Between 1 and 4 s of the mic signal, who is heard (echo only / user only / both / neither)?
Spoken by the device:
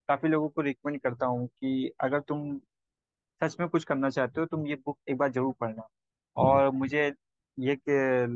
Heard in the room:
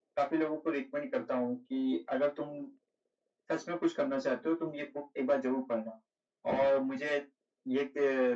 echo only